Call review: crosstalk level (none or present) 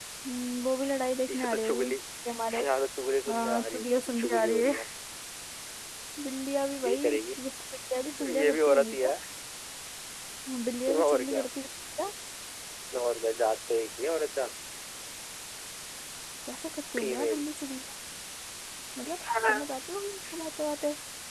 present